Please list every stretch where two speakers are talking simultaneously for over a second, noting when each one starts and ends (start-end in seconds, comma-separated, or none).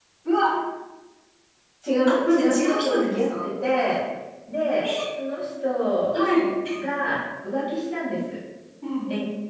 2.1-3.5